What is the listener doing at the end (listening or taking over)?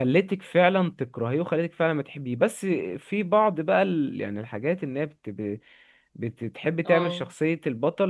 listening